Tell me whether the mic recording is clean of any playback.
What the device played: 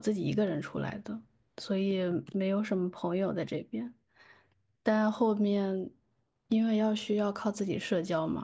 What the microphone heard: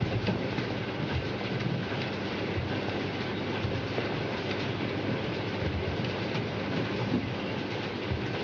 Yes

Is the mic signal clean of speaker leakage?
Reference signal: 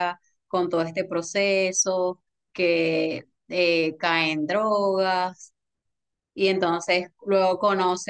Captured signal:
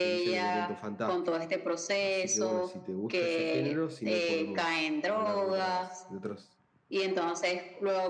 No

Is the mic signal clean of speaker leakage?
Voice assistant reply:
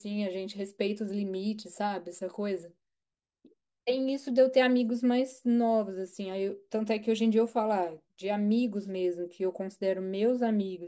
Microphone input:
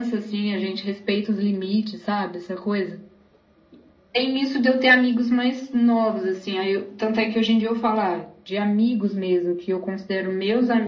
No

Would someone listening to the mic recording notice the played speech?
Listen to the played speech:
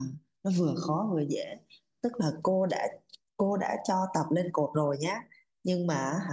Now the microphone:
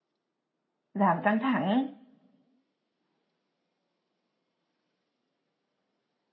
No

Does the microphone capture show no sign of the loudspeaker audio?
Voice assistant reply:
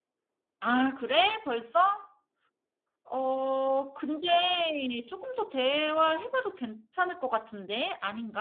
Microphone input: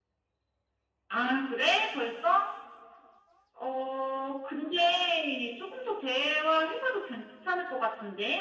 No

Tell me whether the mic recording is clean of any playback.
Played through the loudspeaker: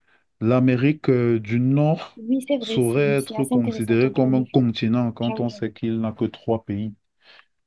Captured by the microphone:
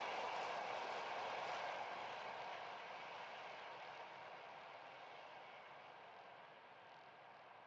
Yes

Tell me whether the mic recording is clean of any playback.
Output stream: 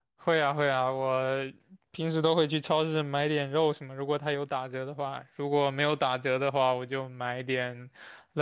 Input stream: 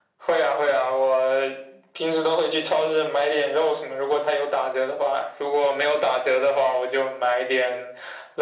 No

